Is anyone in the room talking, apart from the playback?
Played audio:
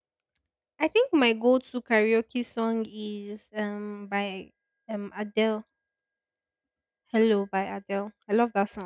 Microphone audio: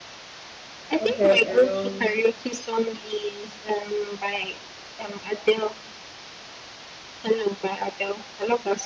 Yes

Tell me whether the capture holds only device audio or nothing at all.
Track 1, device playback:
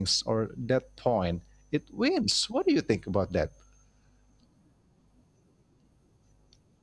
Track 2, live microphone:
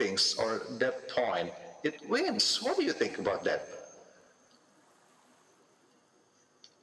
Yes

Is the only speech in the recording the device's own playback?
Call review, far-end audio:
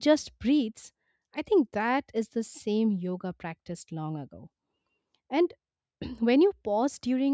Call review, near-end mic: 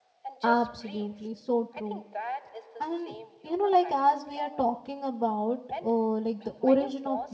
No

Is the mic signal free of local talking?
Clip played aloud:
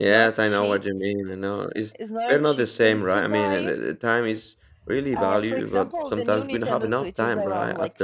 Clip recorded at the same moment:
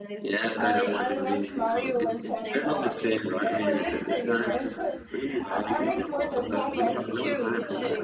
No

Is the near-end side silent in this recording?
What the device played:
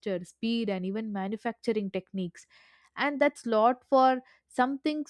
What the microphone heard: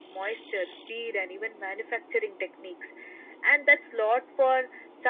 Yes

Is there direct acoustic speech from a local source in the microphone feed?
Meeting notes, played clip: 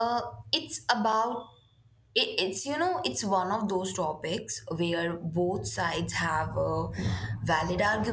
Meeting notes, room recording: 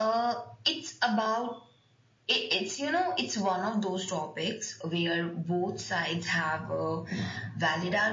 No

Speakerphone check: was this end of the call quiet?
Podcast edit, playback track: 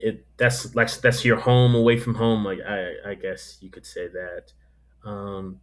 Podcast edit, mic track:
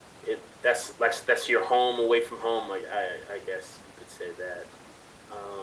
Yes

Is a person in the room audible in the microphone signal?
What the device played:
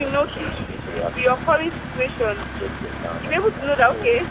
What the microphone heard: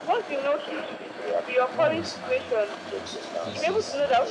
Yes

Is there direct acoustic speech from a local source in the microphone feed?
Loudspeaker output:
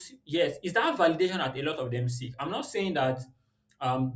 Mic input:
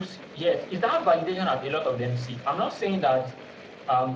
No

